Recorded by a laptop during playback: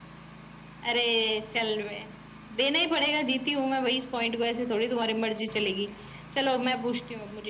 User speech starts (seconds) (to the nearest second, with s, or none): none